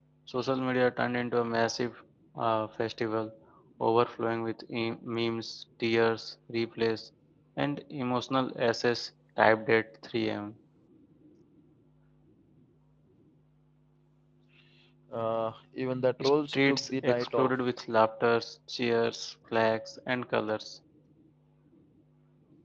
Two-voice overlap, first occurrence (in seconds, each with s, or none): 16.2 s